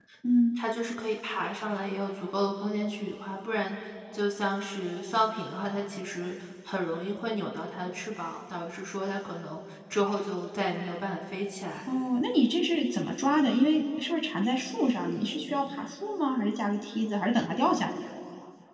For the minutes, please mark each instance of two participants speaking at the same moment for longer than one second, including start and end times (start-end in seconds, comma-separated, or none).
none